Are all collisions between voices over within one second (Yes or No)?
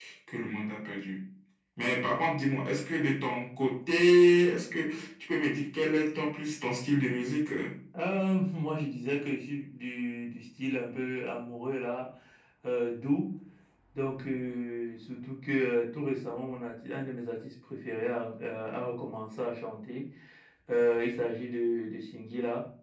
Yes